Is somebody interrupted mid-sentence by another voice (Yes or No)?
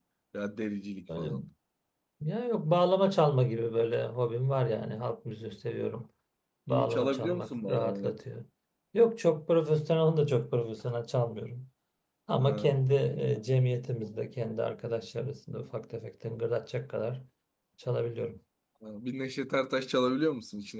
Yes